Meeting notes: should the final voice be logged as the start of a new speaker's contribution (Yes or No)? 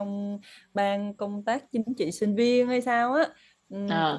No